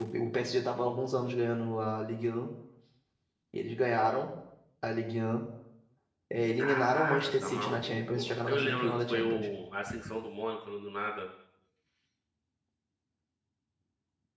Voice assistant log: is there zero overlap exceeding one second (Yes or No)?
No